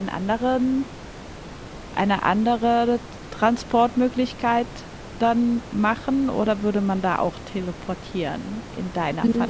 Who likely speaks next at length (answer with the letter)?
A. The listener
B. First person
A